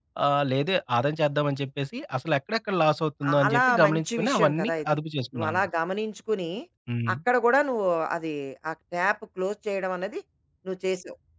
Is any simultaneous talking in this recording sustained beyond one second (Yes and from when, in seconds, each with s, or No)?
Yes, from 3.2 s